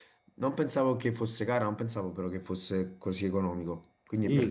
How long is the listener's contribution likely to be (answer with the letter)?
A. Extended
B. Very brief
A